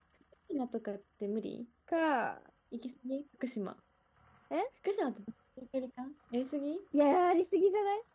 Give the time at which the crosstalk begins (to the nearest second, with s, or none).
none